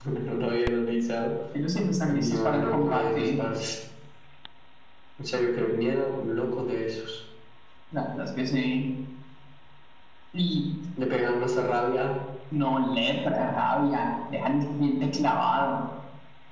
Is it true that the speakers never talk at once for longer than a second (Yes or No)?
No